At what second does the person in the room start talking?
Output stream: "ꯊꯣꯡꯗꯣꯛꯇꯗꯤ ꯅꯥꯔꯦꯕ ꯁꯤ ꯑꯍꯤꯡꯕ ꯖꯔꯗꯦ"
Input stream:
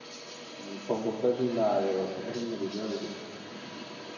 none

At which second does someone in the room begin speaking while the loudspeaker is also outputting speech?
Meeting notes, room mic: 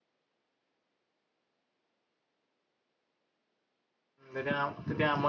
4.3 s

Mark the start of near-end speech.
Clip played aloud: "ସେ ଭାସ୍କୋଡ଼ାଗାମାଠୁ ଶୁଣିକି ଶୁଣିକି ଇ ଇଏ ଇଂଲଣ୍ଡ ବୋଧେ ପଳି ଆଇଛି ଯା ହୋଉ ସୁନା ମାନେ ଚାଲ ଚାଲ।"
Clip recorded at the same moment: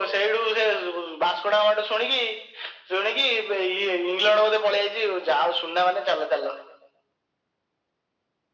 none

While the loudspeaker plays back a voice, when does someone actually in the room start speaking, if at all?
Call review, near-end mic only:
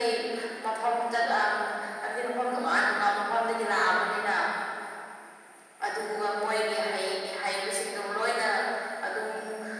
none

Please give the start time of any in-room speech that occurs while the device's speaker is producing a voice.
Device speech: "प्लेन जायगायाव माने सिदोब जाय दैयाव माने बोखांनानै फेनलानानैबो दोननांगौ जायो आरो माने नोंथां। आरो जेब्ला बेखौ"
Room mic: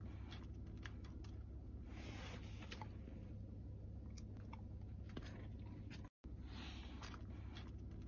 none

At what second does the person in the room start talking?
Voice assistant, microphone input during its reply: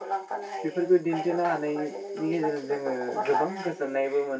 0.6 s

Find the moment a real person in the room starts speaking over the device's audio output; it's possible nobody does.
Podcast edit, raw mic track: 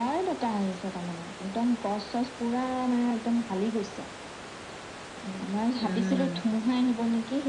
5.8 s

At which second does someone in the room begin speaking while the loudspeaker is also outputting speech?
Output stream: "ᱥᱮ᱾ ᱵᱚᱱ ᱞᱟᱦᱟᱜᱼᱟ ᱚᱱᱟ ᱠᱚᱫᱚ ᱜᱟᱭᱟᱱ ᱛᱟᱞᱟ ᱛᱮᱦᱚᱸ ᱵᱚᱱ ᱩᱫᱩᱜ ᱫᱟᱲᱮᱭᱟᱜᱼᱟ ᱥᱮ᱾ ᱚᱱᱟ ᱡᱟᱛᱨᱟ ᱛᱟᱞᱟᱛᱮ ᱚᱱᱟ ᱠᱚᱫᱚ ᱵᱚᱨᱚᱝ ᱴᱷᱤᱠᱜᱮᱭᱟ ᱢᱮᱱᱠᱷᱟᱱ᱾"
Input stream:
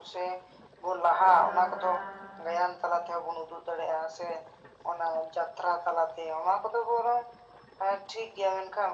1.2 s

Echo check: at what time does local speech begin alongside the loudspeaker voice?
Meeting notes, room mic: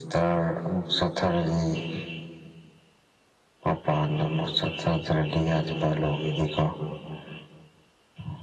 none

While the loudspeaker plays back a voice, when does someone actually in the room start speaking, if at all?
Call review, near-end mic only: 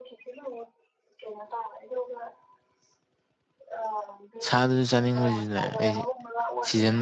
4.4 s

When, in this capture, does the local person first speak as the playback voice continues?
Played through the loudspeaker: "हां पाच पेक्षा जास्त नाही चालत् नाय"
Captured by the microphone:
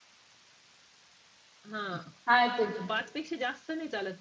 2.3 s

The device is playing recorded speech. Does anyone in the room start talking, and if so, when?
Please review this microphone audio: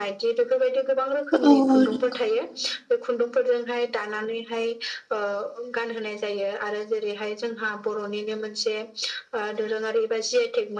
1.3 s

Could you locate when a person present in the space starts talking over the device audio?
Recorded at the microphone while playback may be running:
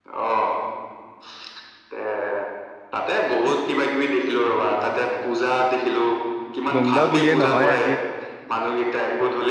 6.8 s

